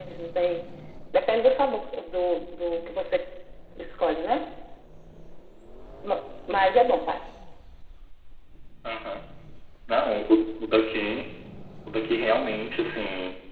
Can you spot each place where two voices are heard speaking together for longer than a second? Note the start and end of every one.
none

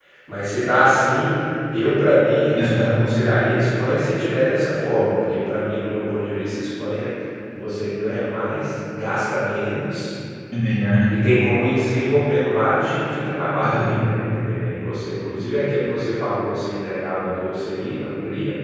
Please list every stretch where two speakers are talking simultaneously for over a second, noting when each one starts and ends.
none

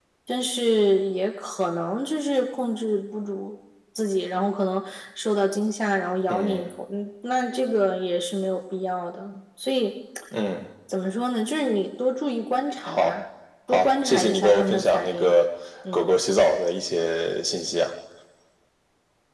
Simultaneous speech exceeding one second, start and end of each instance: 13.7-15.3

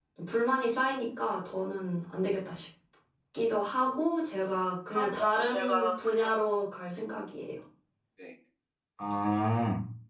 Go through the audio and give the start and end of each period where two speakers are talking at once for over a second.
4.9-6.3

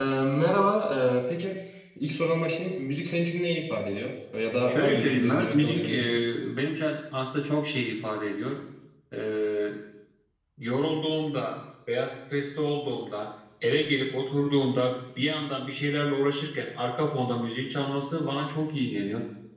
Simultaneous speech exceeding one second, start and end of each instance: 4.7-6.2

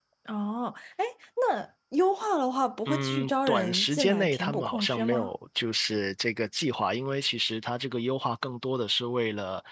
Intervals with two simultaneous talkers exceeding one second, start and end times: 2.9-5.3

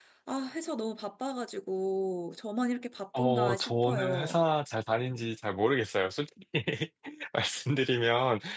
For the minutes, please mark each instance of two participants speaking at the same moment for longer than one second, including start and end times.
3.2-4.4

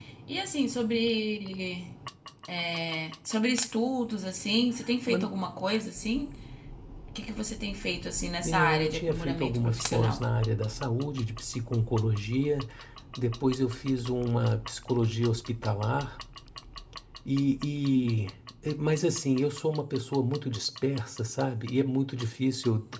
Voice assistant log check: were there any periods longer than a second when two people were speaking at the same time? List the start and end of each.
8.4-10.2

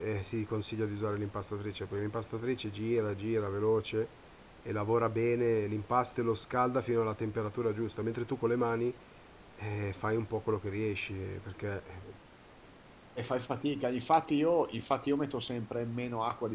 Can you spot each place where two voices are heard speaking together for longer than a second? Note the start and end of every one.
none

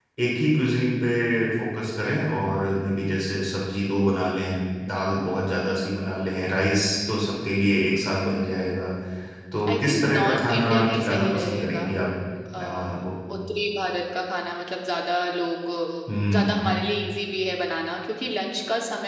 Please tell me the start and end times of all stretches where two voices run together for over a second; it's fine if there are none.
9.7-11.8

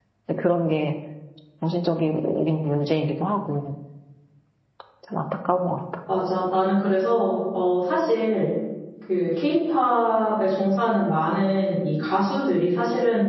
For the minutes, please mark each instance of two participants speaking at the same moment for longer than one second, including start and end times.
none

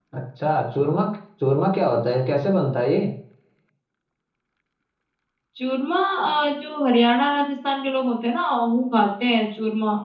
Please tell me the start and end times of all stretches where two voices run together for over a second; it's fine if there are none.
none

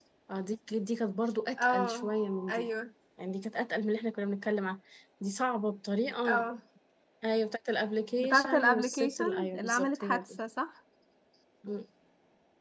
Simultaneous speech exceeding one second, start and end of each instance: 8.2-10.4

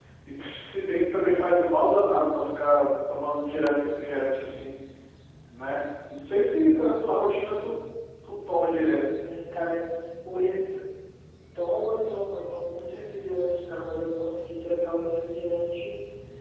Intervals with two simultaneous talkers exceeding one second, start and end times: none

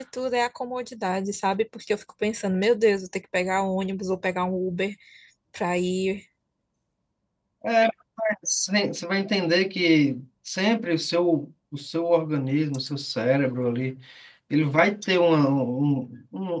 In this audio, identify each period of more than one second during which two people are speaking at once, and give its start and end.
none

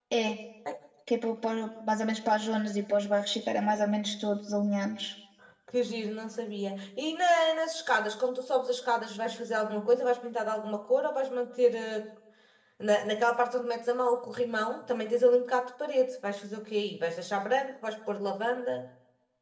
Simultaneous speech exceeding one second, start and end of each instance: none

